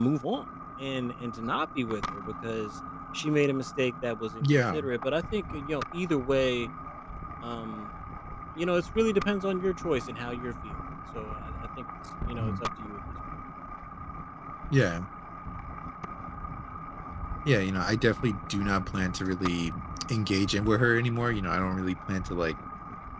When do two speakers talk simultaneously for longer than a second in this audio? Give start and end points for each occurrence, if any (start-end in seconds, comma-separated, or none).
none